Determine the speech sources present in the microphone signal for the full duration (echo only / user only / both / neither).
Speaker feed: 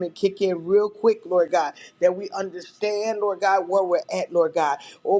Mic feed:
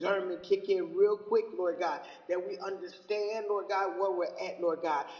echo only